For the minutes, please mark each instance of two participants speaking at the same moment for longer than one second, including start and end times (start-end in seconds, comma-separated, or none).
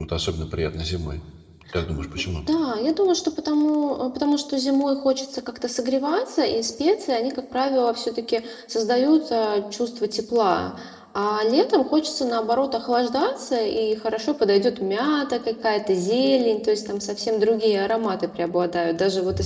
none